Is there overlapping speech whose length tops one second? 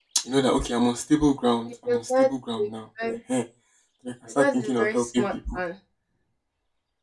Yes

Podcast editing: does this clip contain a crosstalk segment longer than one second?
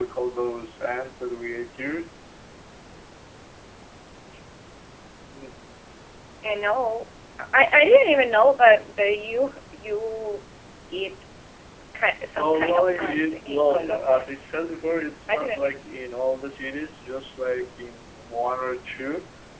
Yes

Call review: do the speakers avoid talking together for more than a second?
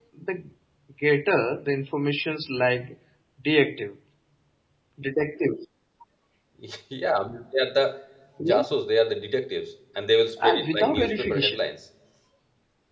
No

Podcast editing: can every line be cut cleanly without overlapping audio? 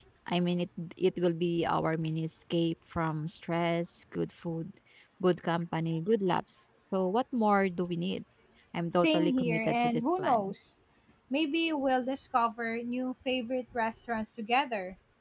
No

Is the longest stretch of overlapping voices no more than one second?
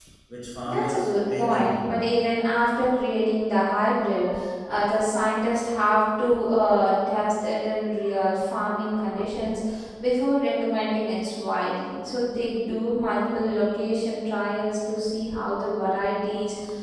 No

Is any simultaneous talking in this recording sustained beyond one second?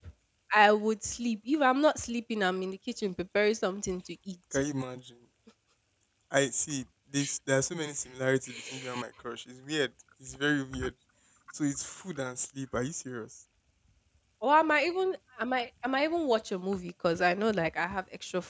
No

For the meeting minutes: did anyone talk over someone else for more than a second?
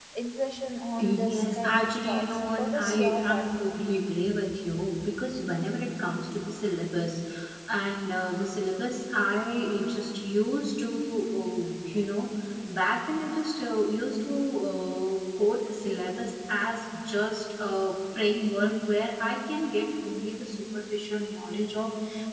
Yes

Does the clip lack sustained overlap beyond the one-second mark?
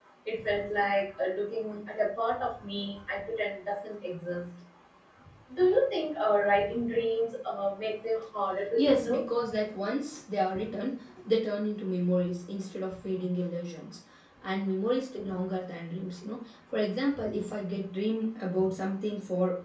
Yes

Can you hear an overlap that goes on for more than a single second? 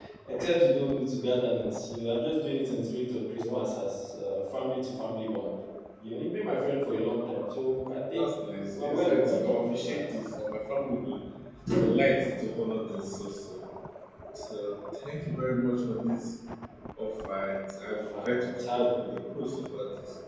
Yes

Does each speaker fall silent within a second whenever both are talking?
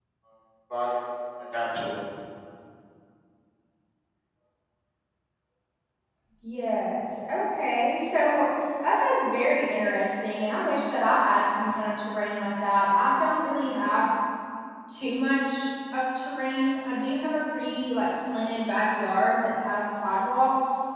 Yes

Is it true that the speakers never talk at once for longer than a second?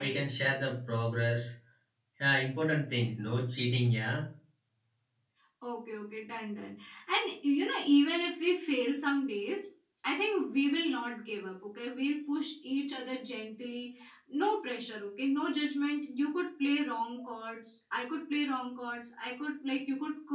Yes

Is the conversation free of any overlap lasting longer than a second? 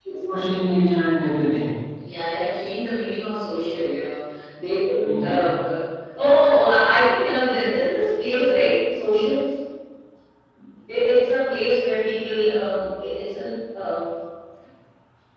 Yes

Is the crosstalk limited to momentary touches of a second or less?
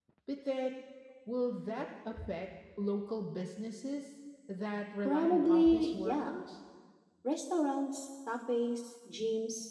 No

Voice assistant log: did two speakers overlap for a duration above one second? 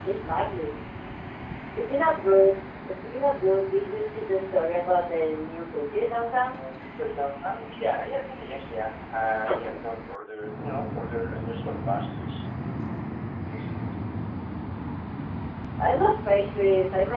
No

